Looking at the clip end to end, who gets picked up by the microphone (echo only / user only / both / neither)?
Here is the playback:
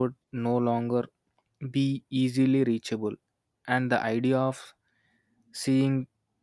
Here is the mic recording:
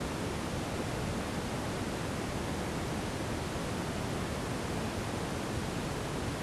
neither